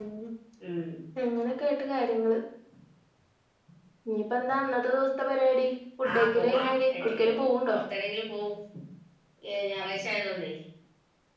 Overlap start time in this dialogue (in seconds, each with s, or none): 6.0 s